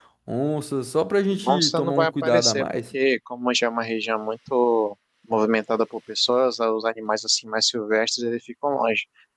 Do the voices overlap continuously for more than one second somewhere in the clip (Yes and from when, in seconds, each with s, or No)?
Yes, from 1.3 s